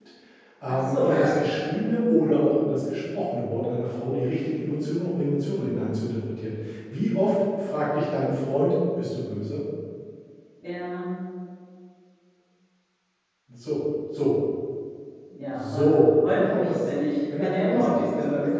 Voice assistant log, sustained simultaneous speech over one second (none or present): present